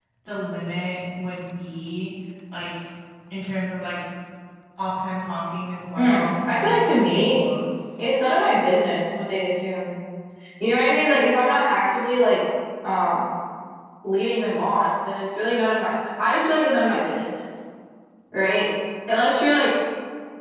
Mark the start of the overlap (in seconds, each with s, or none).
6.0 s